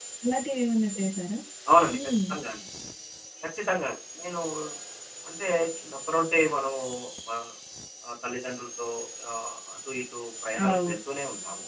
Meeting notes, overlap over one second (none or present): none